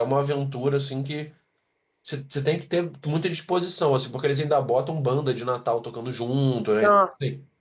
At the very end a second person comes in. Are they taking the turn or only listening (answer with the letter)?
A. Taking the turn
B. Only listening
B